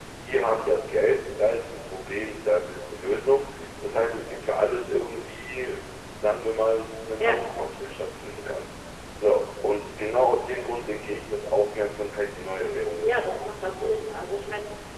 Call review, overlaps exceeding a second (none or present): present